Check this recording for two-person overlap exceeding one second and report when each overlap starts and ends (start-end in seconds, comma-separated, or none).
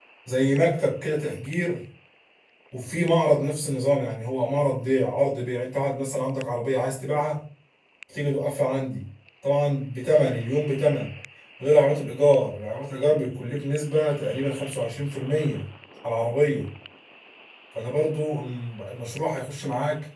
none